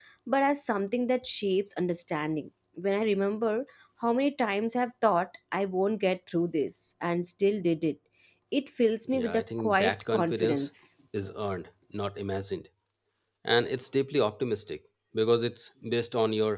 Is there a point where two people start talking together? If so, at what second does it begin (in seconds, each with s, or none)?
9.2 s